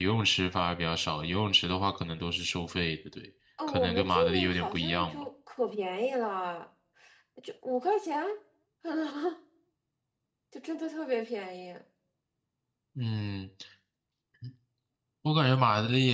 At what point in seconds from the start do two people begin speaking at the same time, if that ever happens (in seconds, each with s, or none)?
3.6 s